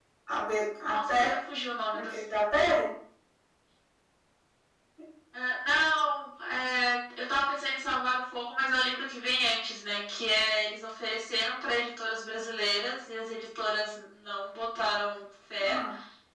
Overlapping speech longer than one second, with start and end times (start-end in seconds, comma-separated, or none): none